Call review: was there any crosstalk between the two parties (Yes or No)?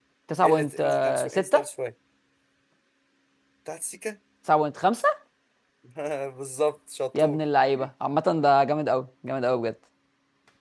Yes